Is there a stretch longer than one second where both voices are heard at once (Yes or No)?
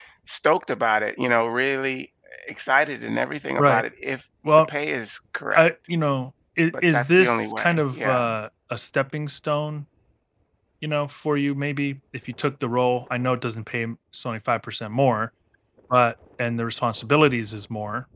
Yes